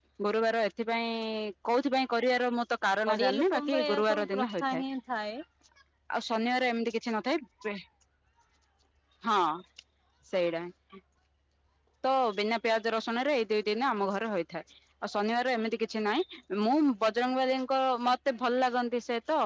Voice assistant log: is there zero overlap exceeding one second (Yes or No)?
No